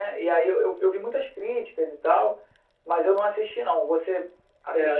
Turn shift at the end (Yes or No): Yes